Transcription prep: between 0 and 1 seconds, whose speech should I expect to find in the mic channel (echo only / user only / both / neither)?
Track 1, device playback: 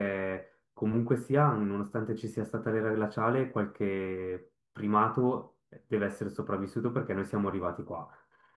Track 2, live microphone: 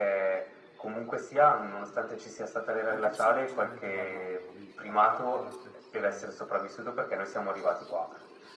echo only